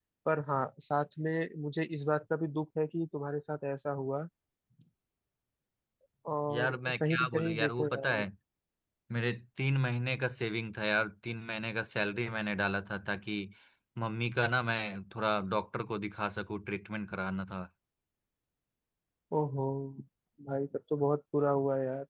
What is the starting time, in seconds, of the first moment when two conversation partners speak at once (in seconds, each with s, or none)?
6.5 s